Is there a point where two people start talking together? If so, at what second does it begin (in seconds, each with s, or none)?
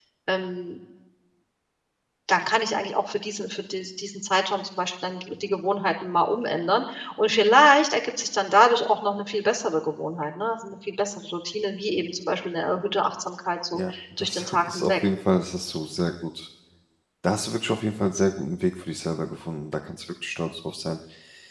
13.7 s